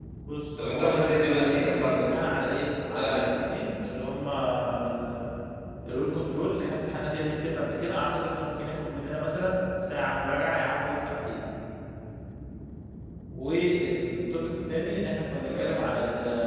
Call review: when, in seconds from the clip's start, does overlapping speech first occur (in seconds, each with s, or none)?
0.7 s